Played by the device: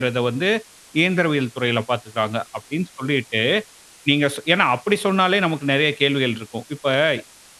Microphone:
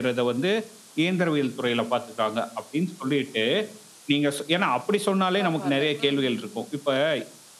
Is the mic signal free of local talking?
No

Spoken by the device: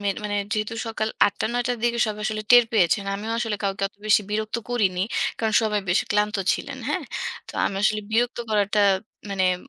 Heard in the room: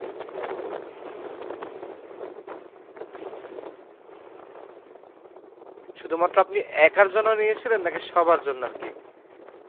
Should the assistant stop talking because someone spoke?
Yes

